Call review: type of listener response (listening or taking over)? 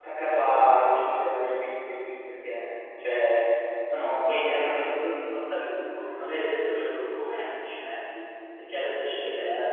listening